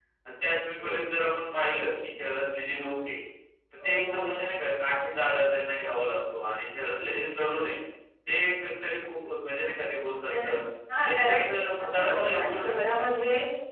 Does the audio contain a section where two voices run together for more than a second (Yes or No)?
Yes